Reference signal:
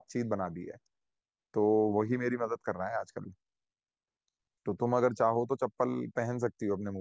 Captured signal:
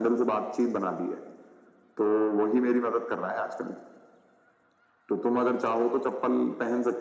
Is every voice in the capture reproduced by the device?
Yes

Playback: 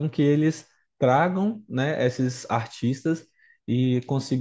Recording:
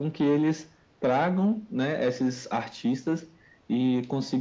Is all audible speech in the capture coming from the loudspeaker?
Yes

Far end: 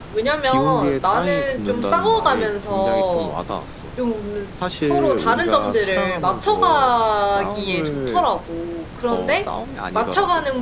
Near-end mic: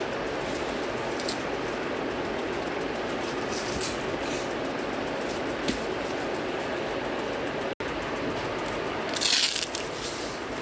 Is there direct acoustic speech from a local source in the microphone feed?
No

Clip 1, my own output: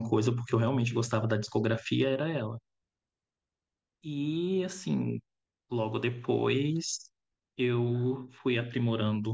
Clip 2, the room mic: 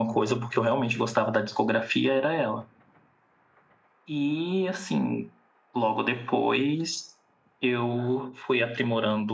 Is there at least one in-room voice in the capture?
No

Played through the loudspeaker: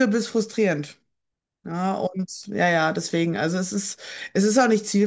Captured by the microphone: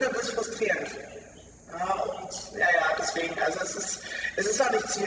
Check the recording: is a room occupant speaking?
No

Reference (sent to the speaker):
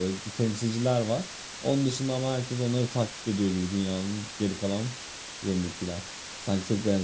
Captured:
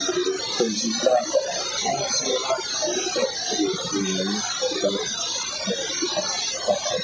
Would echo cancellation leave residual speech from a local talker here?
No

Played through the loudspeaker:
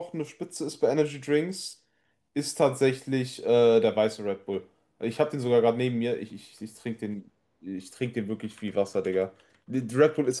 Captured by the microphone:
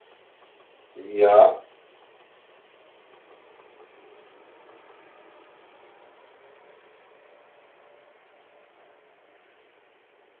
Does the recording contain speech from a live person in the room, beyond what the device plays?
Yes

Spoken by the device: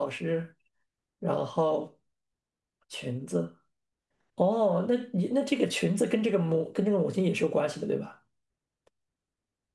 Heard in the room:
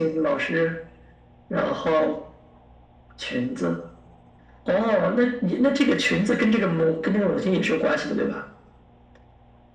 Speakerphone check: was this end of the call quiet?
Yes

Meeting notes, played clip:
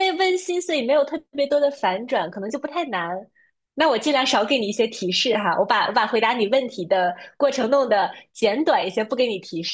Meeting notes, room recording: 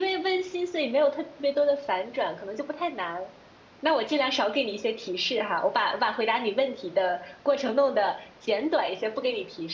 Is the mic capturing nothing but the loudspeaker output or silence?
Yes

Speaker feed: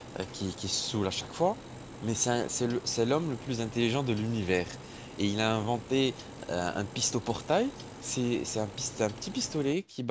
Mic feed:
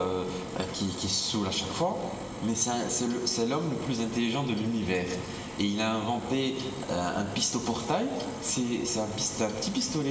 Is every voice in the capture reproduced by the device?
Yes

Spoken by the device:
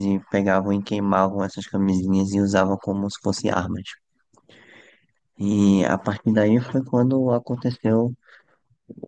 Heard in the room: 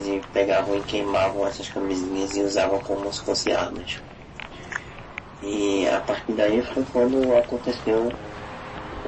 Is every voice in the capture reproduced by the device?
Yes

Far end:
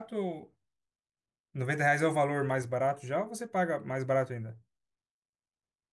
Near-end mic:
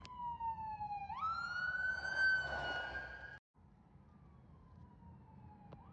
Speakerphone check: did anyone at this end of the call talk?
No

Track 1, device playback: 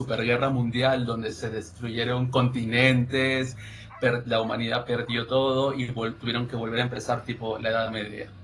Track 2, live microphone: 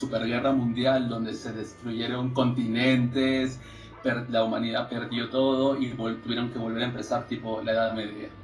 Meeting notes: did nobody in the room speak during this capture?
Yes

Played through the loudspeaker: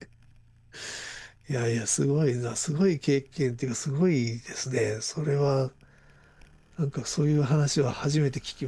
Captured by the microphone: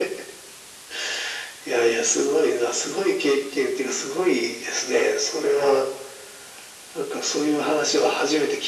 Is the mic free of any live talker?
Yes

